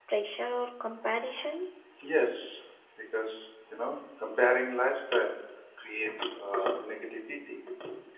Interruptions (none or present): none